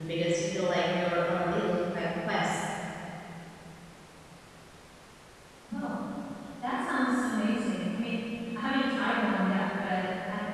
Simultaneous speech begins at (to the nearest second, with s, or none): none